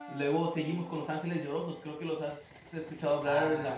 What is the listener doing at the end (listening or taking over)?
taking over